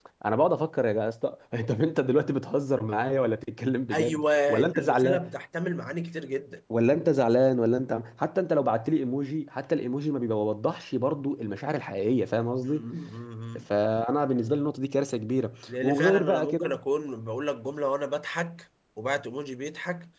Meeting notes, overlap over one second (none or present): present